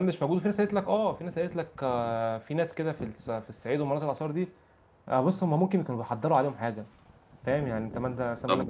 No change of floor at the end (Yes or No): Yes